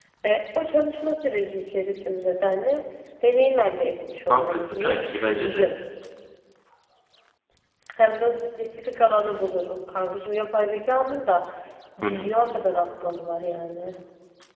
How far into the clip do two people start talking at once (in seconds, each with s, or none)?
4.3 s